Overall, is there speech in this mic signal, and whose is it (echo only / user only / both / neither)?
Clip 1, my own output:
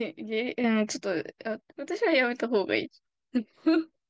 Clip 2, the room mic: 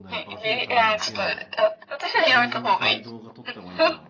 both